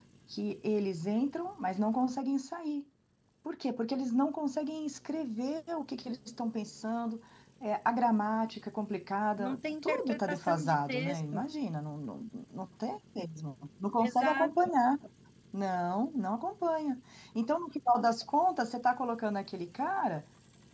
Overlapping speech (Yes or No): Yes